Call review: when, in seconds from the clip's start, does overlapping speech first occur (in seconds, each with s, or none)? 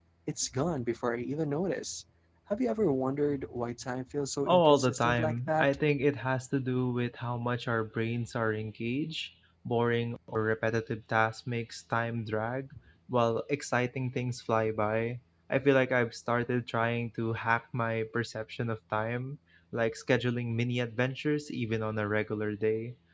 4.5 s